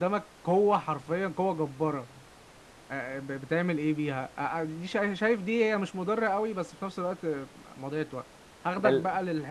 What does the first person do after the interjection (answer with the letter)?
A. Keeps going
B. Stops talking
A